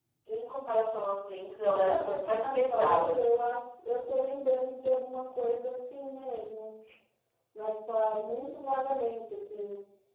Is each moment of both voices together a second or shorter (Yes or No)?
No